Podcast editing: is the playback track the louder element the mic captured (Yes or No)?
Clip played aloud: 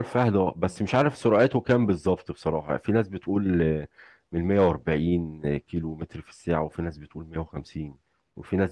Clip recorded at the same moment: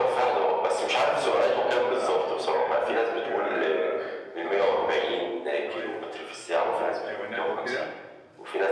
Yes